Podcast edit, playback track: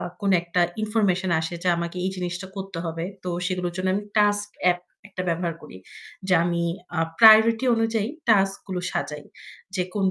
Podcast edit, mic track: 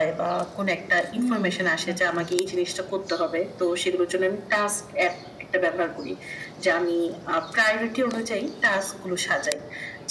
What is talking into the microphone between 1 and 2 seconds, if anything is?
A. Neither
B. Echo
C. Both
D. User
C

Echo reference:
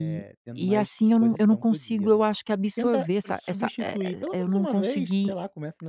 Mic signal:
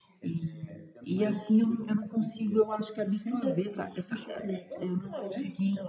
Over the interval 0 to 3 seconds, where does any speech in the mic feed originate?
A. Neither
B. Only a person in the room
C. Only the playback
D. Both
C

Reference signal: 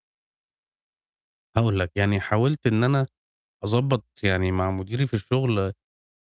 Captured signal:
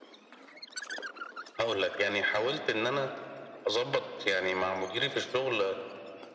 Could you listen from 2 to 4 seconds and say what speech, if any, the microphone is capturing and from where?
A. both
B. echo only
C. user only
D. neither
B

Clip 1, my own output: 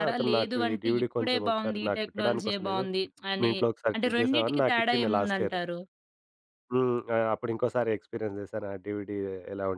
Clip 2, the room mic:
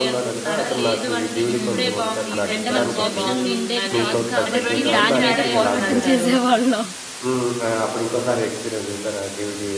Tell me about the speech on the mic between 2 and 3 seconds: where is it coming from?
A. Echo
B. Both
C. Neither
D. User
B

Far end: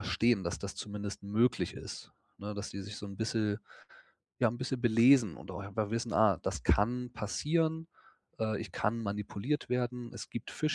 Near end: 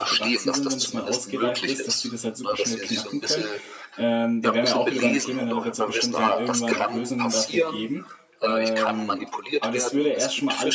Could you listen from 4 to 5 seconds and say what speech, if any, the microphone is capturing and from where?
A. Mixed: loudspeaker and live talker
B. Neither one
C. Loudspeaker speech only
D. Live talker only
A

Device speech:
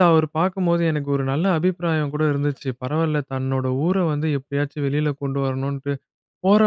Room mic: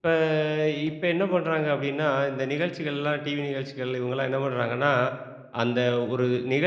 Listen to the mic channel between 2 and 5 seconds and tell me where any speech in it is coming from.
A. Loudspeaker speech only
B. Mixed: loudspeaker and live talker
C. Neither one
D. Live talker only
D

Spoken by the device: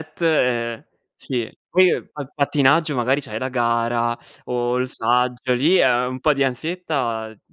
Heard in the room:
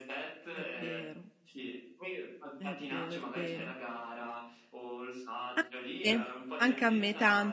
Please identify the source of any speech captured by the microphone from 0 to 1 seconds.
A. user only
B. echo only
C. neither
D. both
D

